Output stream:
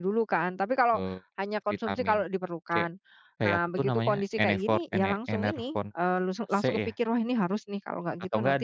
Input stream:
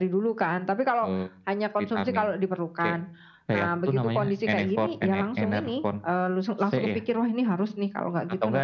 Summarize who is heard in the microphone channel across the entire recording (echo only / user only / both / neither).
echo only